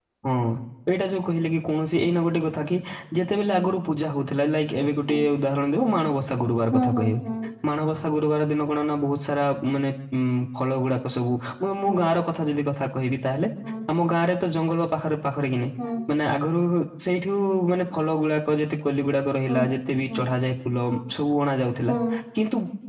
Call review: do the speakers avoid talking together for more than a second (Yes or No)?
Yes